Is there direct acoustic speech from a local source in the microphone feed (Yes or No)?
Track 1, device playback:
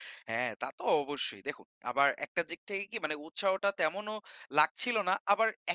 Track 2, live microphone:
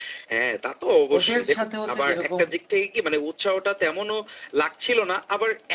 Yes